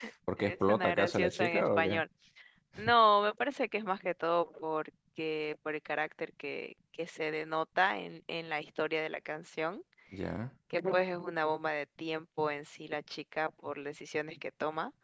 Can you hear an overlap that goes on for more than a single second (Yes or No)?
Yes